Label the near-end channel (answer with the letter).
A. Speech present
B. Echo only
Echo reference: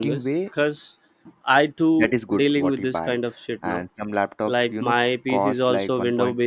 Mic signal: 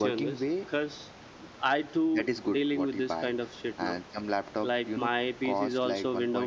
B